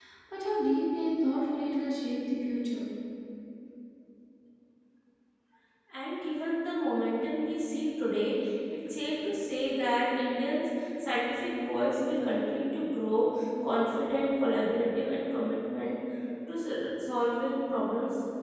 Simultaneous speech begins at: none

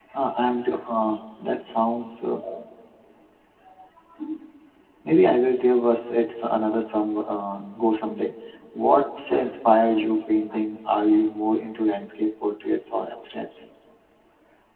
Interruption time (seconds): none

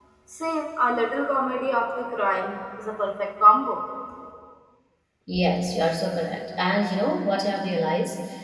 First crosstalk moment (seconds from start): none

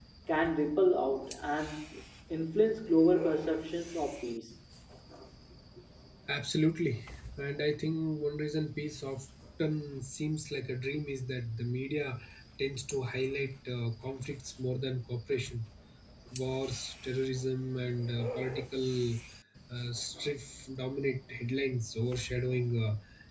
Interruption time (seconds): none

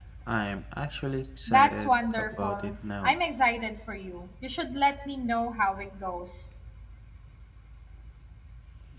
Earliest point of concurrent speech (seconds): 1 s

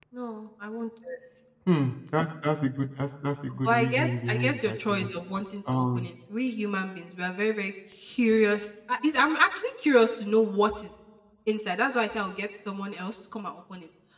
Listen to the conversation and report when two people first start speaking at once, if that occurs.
4 s

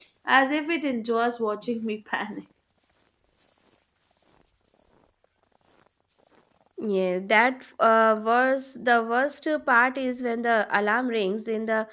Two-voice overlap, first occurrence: none

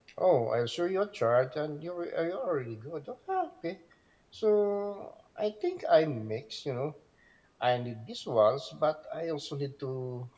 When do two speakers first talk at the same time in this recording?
none

